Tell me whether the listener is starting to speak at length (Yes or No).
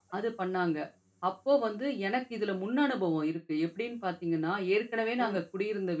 No